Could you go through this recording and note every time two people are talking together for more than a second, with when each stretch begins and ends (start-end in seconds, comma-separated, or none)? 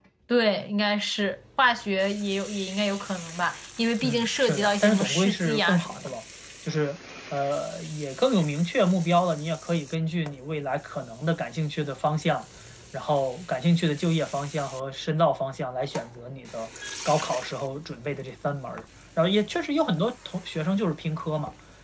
4.0-6.1